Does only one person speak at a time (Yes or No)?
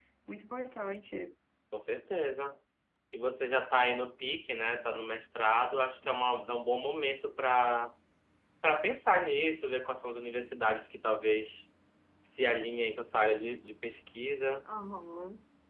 Yes